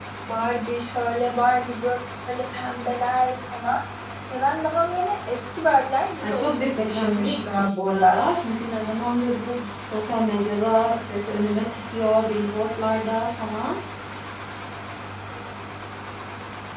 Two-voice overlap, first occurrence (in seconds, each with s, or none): 6.2 s